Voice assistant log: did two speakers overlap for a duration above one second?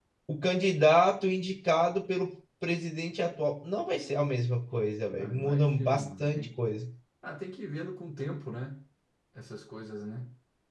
Yes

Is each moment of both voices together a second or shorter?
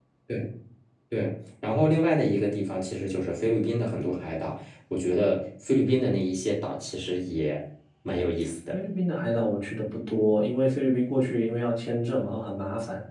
Yes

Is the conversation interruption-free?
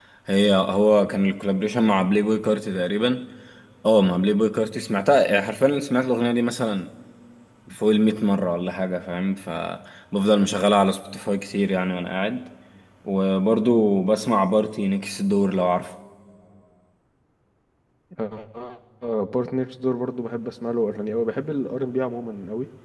Yes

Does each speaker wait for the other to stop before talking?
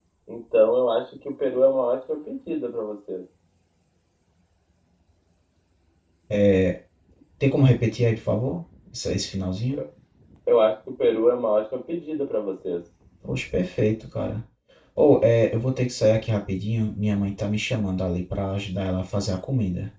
Yes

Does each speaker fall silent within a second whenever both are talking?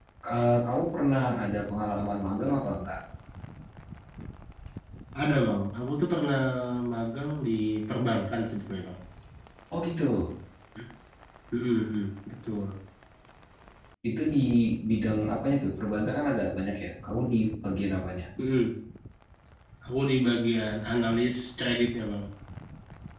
Yes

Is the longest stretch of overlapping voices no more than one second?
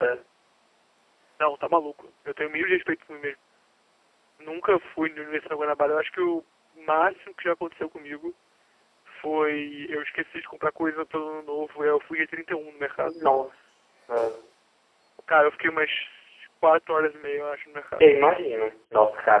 Yes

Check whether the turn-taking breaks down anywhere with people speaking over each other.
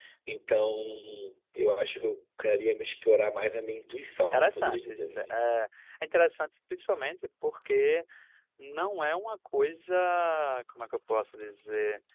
Yes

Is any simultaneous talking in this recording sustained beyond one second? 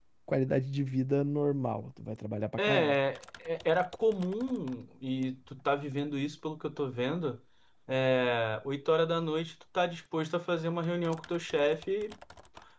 No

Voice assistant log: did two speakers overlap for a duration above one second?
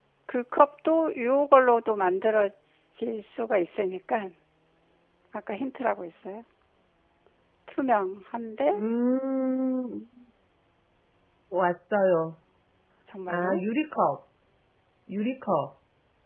No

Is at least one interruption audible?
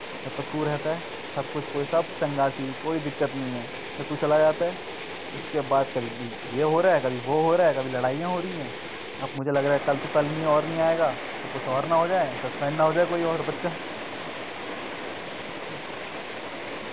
No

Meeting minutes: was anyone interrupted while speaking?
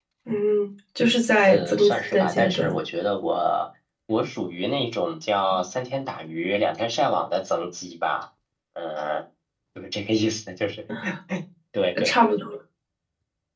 Yes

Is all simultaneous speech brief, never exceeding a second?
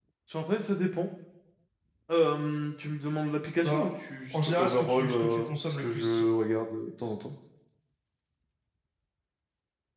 No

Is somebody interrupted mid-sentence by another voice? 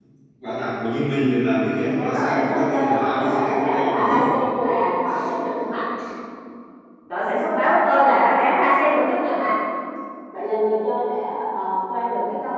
Yes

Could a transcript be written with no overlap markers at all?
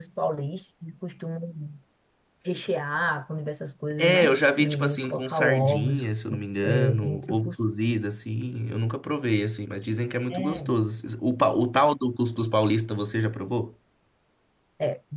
No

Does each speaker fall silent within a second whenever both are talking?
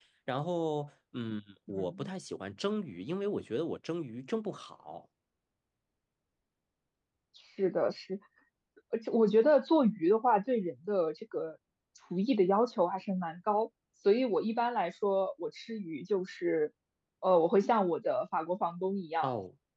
Yes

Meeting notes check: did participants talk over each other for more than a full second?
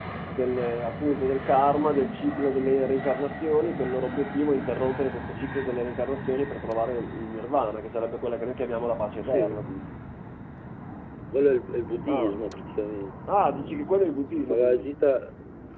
No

